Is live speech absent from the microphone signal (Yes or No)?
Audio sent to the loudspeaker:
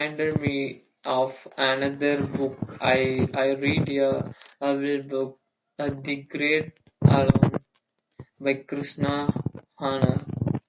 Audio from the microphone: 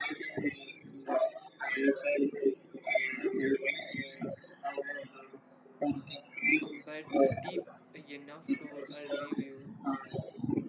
No